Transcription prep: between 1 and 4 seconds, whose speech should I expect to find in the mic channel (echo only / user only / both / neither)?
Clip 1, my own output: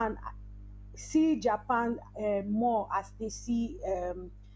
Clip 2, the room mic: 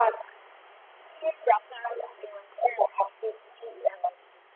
echo only